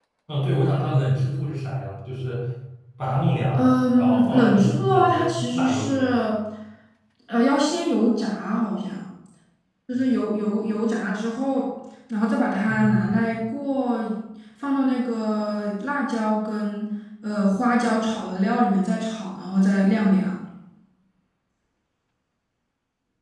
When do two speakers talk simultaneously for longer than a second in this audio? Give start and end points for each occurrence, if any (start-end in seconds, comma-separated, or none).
3.5-6.2